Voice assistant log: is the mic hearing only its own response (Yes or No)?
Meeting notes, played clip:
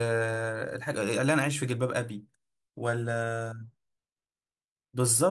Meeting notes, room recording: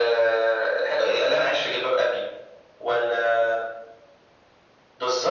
Yes